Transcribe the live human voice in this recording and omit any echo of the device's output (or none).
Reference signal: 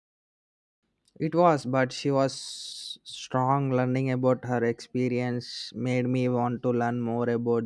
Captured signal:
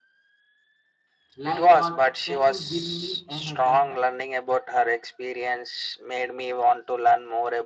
Like what? Can you give me an example?